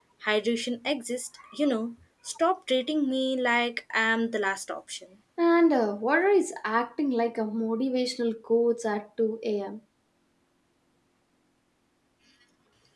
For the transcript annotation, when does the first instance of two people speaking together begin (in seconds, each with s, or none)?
none